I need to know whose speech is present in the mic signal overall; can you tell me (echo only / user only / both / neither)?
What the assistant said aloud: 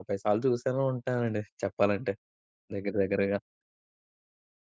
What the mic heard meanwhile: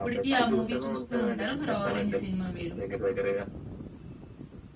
both